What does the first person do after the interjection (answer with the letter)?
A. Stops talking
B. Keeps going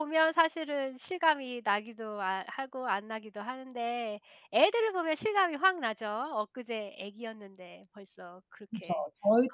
A